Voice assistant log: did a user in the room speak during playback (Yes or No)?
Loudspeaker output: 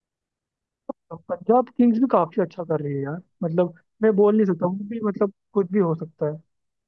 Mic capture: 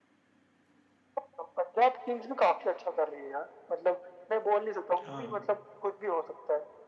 Yes